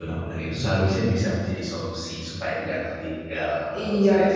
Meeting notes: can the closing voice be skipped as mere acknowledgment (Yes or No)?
No